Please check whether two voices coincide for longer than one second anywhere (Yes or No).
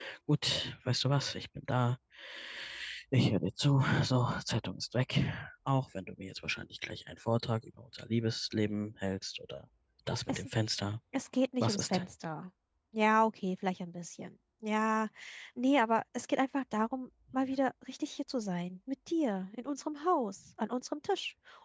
No